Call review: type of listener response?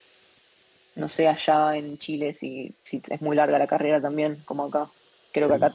listening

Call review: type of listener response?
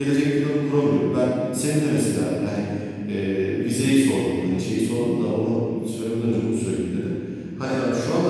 listening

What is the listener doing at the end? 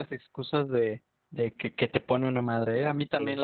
listening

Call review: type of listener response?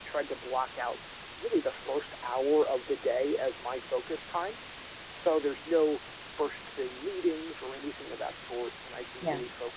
listening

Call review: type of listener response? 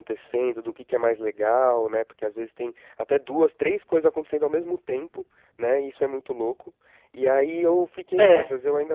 listening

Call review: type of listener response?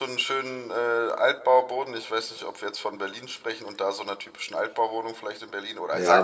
taking over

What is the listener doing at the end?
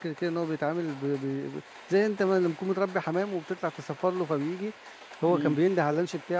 listening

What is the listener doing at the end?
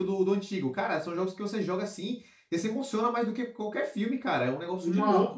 taking over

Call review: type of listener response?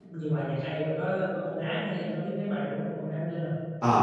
taking over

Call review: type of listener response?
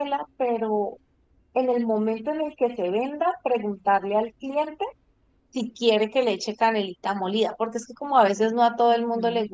taking over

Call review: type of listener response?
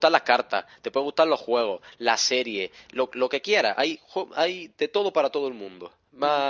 listening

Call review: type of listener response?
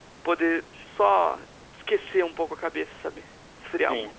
taking over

